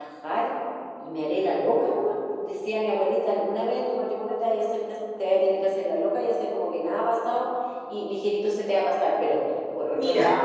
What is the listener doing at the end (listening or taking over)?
listening